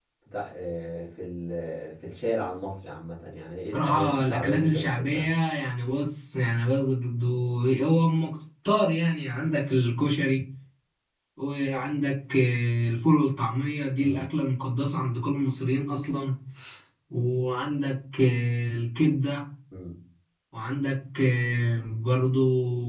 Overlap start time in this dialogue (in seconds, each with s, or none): 3.7 s